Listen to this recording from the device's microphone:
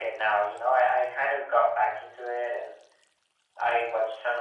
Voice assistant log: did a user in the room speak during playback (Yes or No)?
No